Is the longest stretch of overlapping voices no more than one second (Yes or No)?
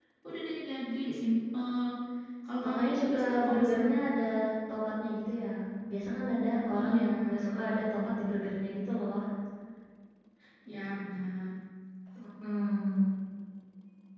No